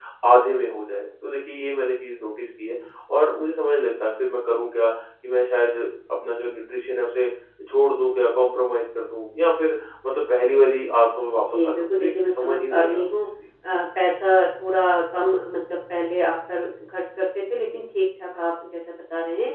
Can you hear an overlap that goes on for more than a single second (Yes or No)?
Yes